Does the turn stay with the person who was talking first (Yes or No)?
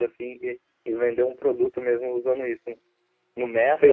No